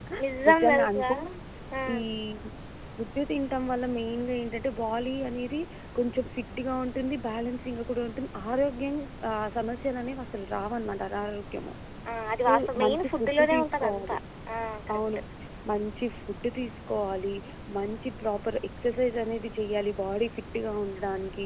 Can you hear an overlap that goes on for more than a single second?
Yes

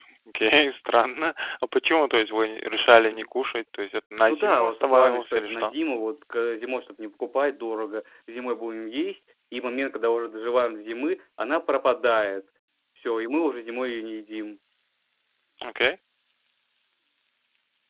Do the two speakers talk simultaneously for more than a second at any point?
Yes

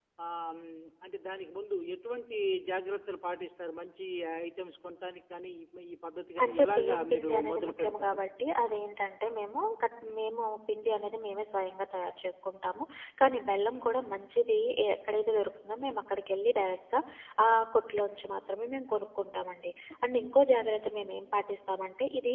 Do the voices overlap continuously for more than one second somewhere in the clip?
Yes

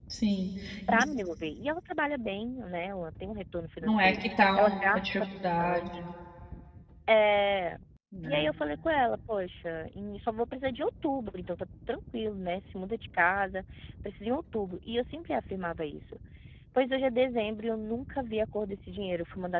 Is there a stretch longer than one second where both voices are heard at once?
Yes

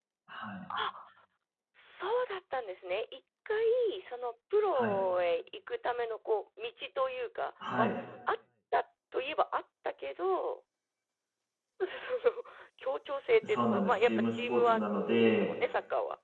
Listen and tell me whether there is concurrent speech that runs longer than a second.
Yes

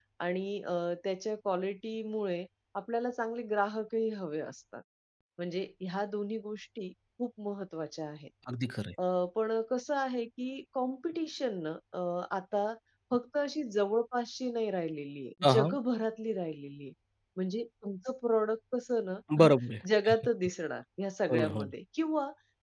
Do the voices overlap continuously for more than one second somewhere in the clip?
No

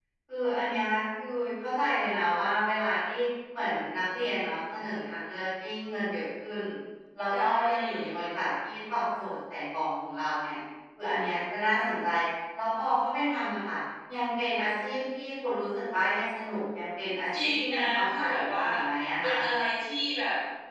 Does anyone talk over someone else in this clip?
Yes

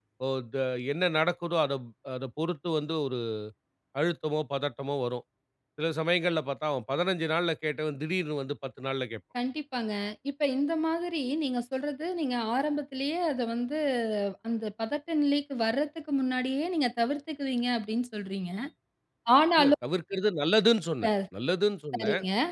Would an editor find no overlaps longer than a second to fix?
Yes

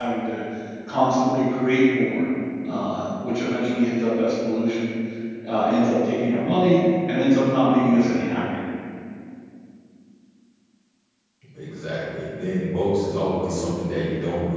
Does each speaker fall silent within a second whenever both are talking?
Yes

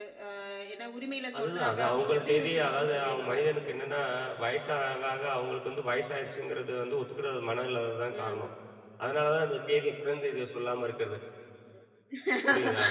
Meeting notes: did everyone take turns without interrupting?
No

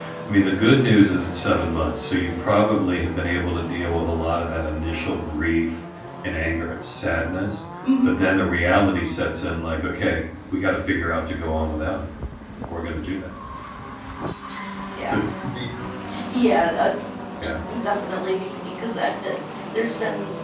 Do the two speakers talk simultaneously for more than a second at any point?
No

